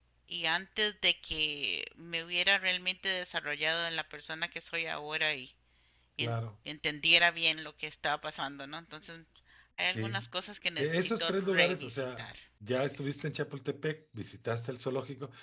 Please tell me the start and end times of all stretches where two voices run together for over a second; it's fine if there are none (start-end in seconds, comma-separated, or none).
10.8-12.3